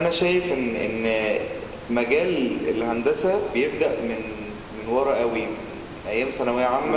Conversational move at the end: listening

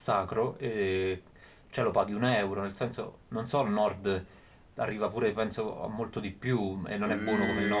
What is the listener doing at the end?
taking over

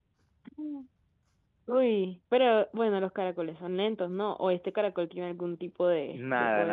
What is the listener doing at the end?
taking over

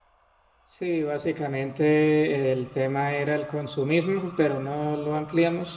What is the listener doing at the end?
listening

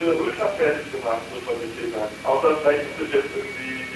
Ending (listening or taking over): listening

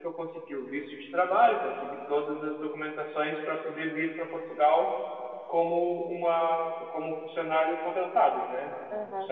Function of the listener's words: taking over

